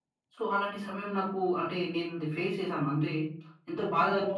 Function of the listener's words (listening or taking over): taking over